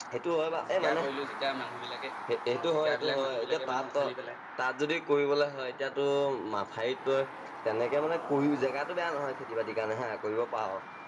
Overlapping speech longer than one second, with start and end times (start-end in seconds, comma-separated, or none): 2.5-3.8